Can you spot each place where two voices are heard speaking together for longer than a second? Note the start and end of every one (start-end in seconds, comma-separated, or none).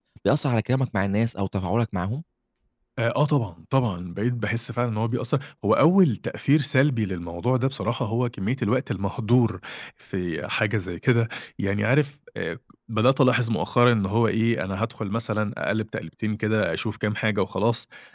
none